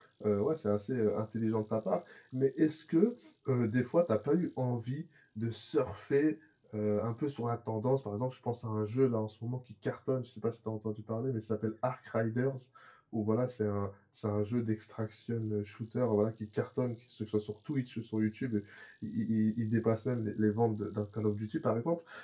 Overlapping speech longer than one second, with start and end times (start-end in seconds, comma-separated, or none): none